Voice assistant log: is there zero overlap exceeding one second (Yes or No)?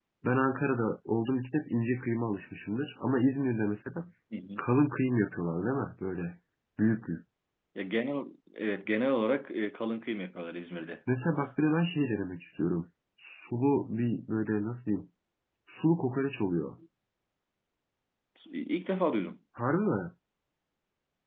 Yes